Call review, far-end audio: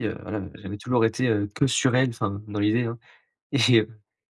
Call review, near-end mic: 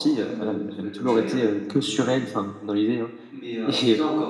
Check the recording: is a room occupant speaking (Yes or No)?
Yes